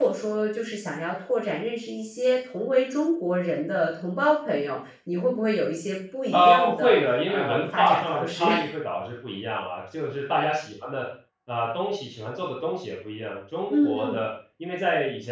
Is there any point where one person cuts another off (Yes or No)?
Yes